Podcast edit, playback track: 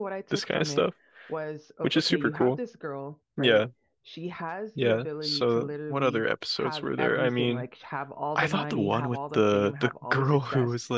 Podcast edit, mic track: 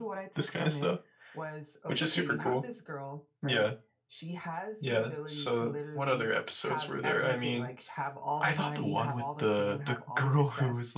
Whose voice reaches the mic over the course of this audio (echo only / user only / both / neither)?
echo only